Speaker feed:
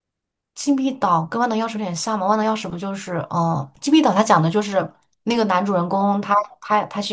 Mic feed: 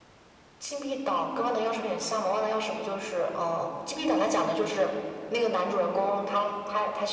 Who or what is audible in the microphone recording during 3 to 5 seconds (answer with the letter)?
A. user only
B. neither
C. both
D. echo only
D